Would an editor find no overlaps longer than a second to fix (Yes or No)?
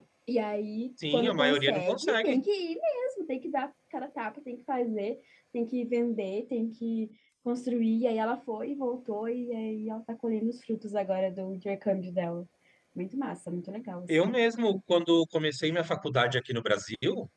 No